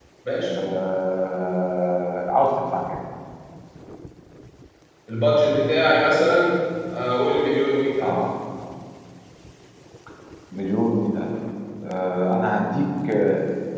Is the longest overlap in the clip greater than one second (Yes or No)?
No